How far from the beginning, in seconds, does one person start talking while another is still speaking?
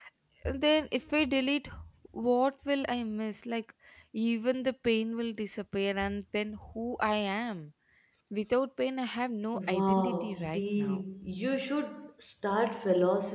9.5 s

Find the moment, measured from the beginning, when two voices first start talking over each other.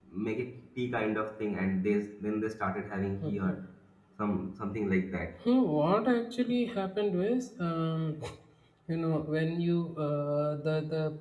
none

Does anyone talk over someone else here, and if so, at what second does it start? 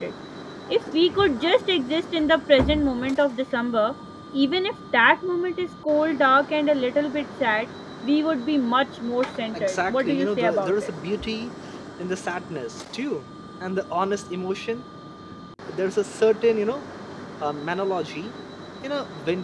9.5 s

